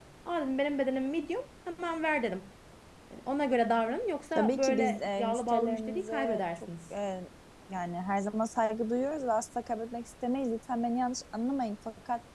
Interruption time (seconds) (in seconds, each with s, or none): 4.3 s